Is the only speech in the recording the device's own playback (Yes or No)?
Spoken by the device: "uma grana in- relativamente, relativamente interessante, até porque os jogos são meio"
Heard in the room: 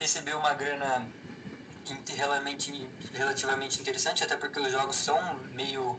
Yes